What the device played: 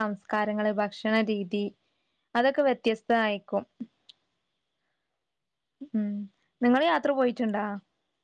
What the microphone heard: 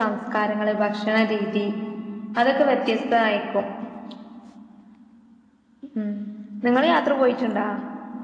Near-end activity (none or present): none